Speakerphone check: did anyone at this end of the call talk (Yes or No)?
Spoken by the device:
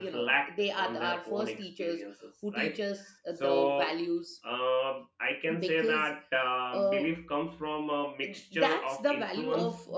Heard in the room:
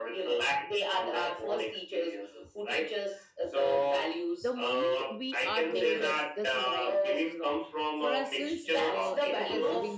Yes